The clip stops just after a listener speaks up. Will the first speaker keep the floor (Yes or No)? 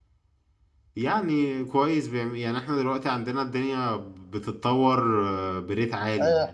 No